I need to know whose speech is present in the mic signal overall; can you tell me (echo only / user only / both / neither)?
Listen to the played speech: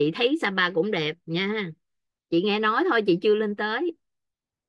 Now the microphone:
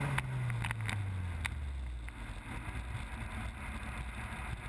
neither